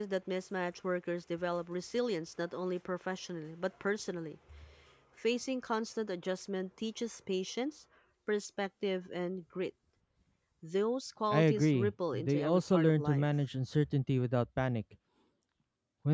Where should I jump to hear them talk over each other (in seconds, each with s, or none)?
11.3 s